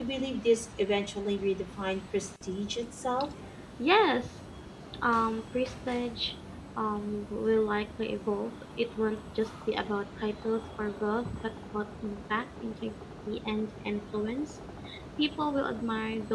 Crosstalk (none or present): none